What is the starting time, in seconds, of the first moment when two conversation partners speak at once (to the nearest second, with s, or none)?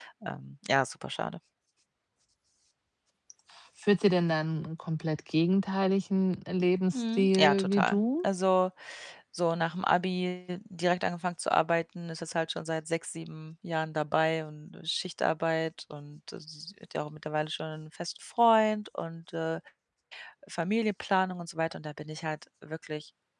7 s